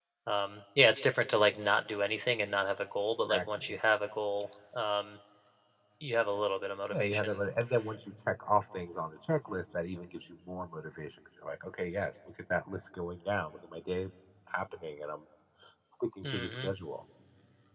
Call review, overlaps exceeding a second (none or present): none